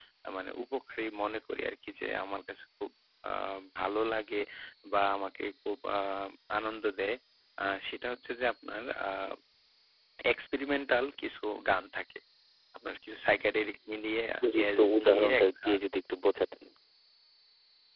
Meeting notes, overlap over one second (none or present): present